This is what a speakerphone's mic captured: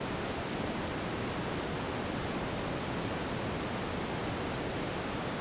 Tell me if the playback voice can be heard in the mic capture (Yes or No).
No